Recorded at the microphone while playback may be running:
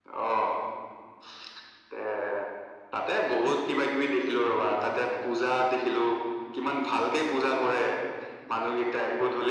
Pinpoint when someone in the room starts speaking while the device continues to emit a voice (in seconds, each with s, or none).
none